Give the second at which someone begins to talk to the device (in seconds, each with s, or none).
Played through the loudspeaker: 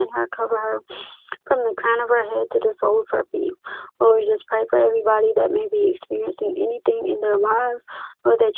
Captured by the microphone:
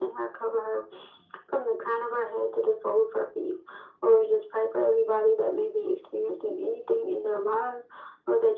none